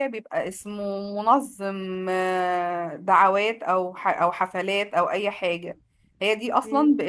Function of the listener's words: listening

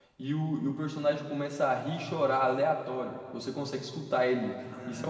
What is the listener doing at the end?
taking over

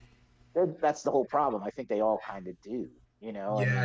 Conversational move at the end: taking over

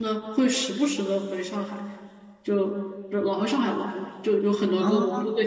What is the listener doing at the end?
listening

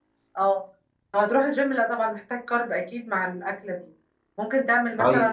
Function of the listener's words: listening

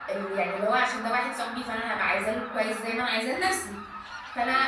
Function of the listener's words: listening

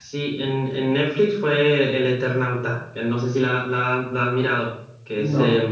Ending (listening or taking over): taking over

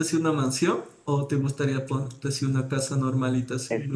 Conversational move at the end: taking over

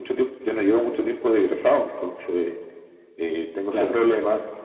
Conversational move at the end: listening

